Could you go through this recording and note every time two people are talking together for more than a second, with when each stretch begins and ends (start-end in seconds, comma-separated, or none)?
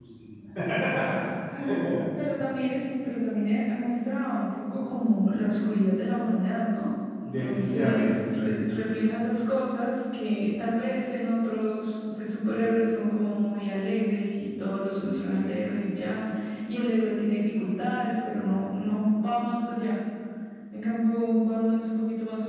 7.2-8.5